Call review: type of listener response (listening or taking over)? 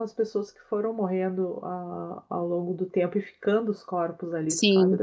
taking over